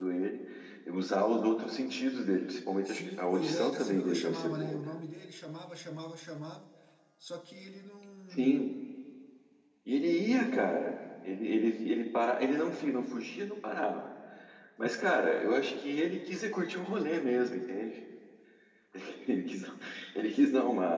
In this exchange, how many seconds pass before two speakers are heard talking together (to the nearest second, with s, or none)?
3 s